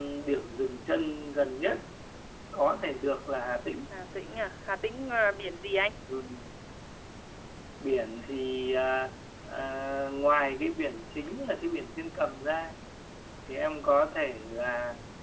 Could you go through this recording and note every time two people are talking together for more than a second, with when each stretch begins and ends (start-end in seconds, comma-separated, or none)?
none